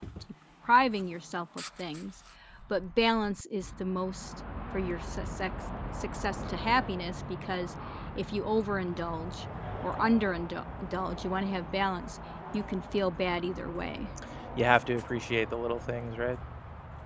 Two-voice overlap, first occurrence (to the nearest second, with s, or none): none